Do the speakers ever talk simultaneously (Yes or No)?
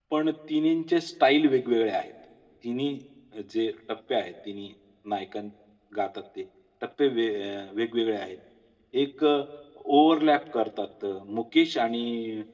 No